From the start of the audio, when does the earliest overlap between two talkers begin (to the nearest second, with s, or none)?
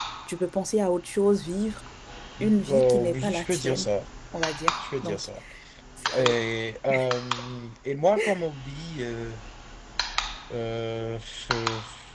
2 s